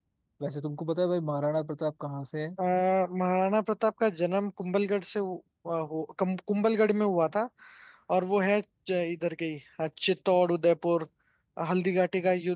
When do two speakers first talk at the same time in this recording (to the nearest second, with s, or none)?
none